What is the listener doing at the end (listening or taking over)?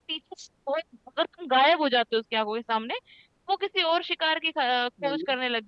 listening